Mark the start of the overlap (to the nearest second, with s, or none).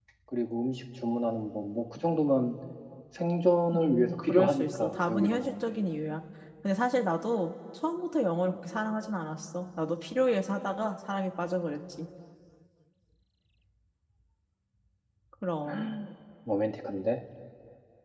4 s